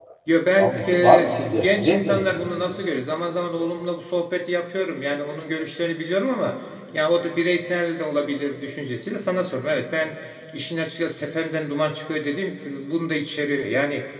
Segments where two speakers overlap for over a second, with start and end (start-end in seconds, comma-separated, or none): 0.6-2.3